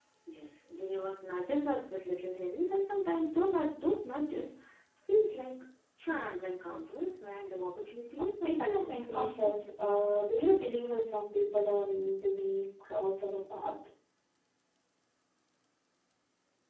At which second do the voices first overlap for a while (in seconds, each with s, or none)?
8.2 s